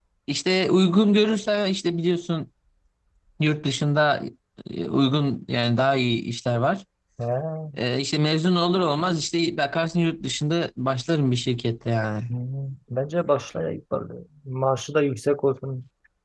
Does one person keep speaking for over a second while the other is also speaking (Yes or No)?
No